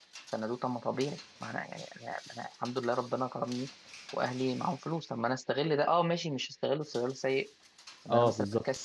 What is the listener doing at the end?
listening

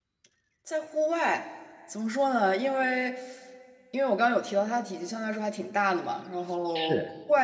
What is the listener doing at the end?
listening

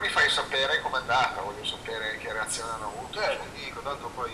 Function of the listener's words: taking over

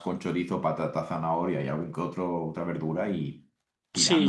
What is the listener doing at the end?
taking over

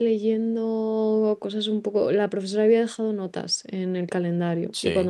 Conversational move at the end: listening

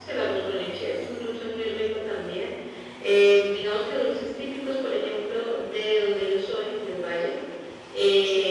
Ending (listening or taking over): listening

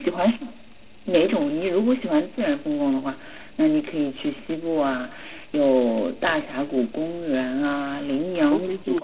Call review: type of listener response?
taking over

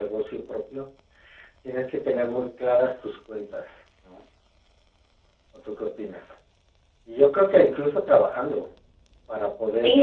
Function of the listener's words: taking over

